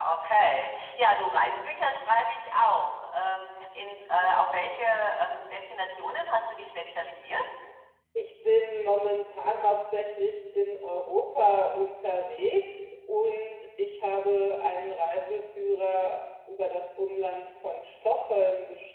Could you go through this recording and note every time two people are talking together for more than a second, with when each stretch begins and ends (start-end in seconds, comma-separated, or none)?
none